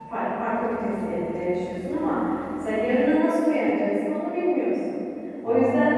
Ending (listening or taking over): listening